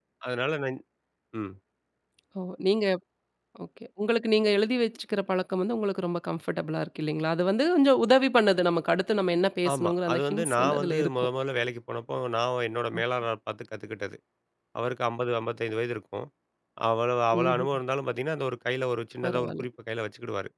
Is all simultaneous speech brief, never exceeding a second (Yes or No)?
No